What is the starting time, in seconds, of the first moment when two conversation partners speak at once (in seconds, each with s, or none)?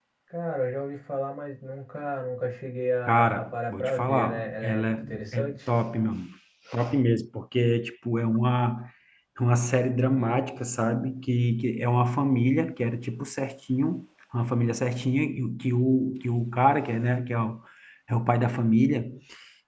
3.0 s